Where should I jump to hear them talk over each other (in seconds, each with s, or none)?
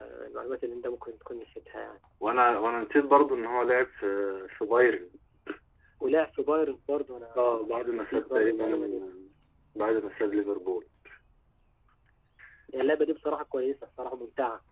7.4 s